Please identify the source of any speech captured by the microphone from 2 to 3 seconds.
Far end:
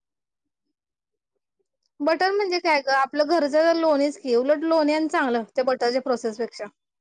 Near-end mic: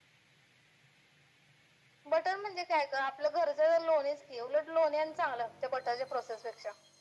echo only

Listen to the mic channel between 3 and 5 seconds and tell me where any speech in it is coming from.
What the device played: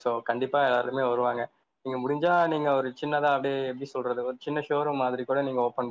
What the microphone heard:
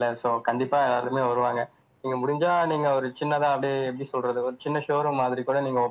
echo only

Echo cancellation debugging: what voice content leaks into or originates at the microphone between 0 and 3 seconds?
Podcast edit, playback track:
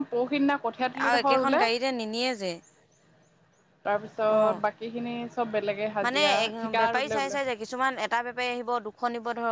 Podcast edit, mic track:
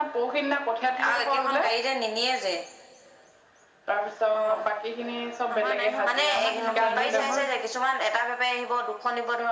echo only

